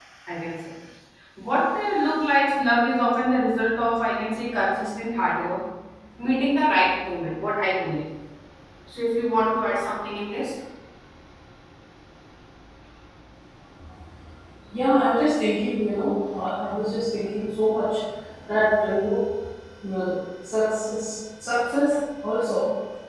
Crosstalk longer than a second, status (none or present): none